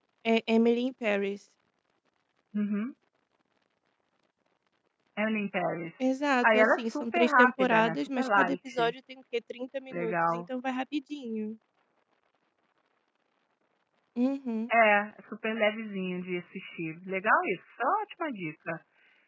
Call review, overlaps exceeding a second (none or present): present